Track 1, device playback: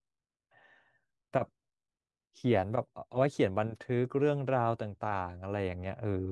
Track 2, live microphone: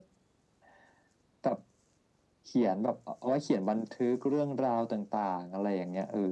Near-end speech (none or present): none